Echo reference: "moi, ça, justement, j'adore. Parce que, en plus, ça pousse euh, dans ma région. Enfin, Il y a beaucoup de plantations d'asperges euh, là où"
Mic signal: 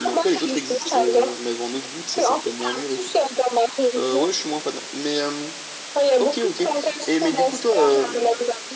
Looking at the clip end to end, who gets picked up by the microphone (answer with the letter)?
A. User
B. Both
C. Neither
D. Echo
B